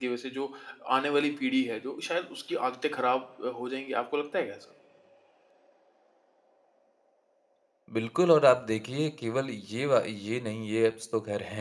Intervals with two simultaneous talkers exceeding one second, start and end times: none

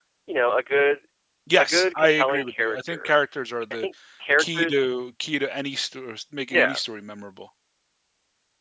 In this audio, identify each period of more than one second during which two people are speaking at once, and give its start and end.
1.6-3.1

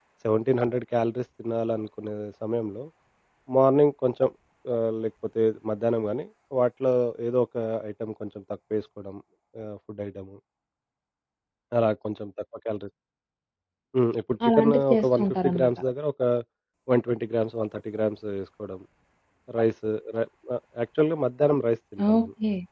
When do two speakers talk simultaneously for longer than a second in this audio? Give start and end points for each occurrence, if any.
14.5-15.7

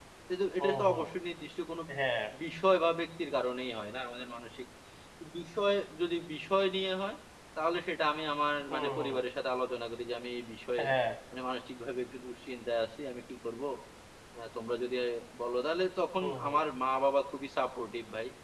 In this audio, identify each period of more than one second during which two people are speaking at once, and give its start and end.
none

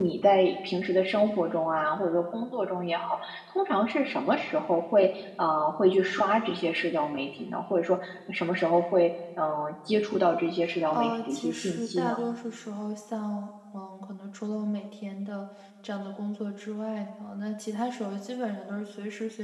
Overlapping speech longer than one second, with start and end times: 10.9-12.1

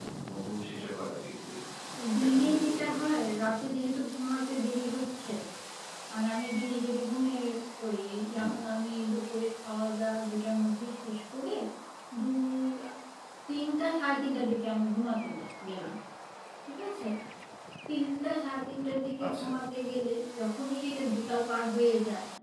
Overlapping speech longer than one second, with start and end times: 2.2-3.5

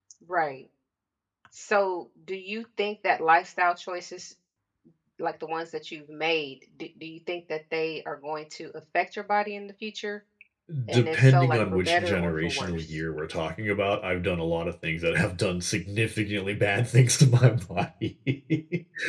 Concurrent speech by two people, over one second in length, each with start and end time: 10.9-12.8

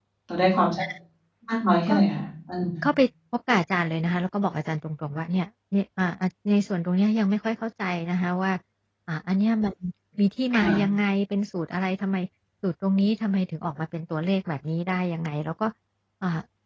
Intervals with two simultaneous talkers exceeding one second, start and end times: none

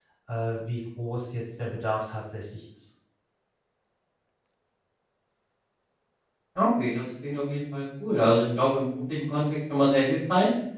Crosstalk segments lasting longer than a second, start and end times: none

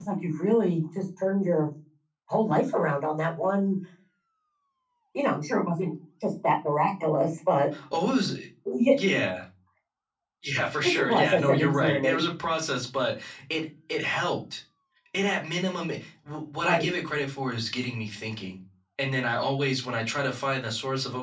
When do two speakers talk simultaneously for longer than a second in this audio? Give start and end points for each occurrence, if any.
10.8-12.2

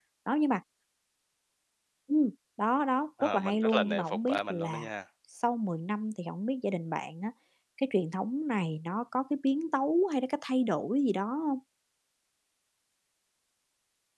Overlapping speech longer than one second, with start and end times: 3.2-4.9

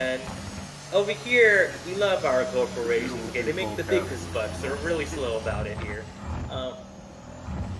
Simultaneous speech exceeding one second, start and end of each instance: 2.8-4.8

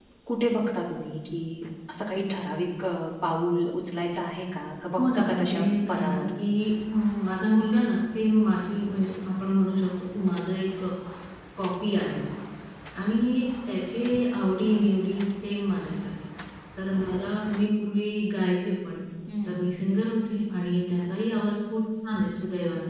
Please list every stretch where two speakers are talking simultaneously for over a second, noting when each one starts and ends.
5.0-6.2

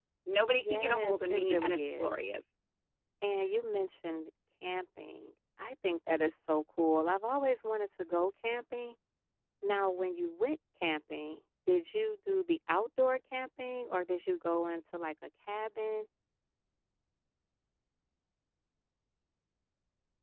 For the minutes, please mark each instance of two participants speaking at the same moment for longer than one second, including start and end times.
0.6-2.1

